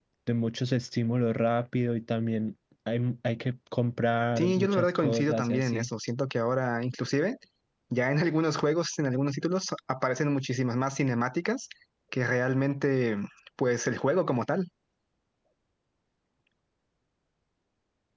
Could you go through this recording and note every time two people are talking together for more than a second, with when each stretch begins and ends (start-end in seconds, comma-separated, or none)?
4.3-5.9